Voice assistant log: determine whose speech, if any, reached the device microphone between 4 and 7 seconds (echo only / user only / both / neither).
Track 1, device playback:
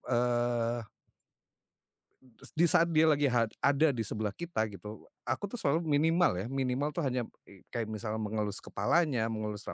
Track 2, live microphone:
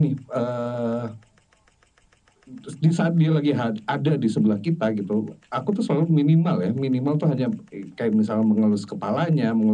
echo only